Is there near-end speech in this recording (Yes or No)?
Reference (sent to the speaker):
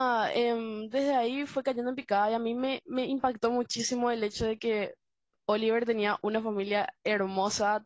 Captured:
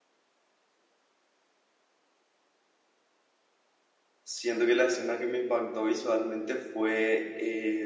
Yes